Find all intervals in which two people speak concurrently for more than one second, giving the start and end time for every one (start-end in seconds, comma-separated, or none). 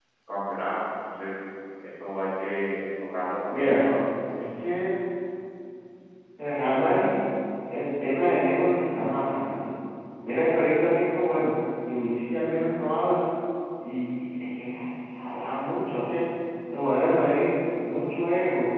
none